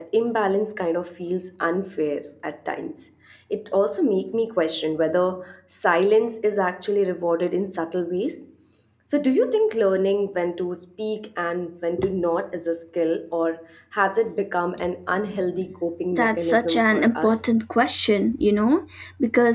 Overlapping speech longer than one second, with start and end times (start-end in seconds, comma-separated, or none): 16.1-17.5